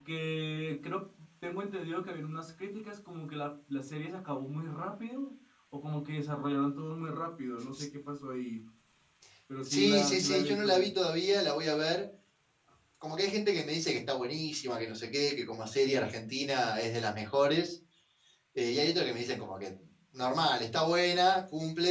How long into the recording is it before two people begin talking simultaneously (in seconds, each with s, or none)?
9.6 s